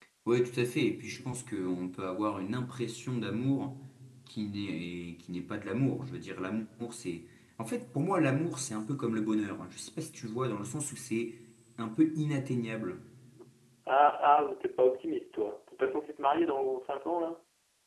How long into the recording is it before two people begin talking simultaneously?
none

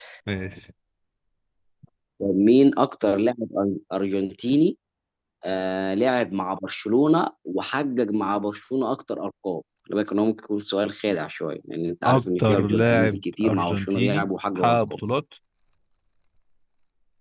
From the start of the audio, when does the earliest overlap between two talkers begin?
12.0 s

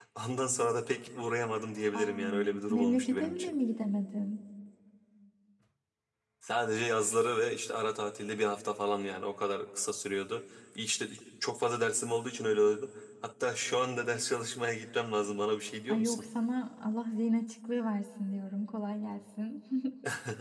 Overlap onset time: 2.0 s

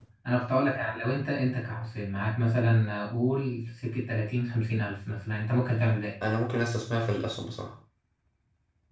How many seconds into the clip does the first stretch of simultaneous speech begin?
none

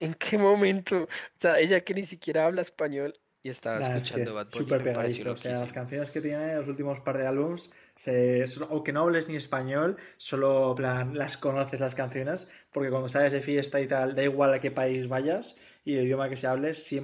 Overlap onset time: 3.8 s

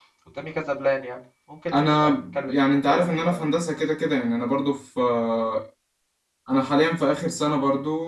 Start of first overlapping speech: 1.7 s

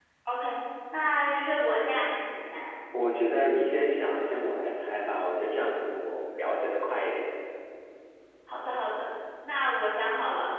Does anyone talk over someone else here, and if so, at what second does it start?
none

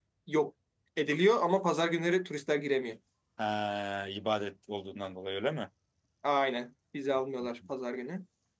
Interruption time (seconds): none

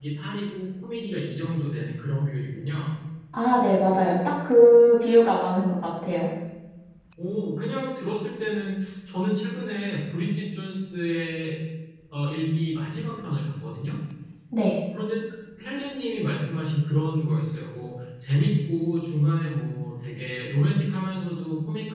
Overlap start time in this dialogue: none

